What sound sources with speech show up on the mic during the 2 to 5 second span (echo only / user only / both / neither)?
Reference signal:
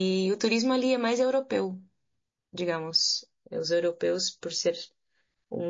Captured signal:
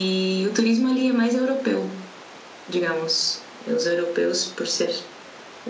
echo only